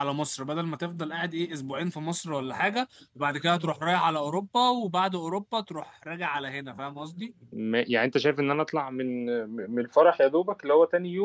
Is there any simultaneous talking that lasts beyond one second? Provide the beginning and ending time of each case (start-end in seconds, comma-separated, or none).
none